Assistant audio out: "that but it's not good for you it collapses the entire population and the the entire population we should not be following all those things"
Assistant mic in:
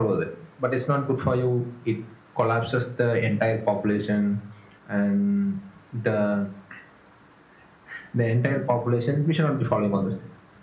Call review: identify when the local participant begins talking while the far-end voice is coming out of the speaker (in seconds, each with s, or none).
none